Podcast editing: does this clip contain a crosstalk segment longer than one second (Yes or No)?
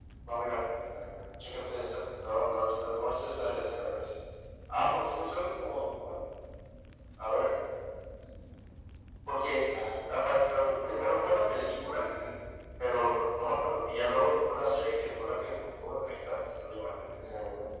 No